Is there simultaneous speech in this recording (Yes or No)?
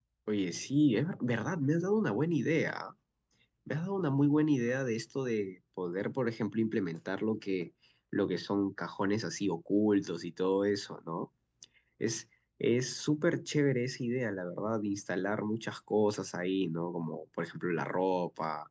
No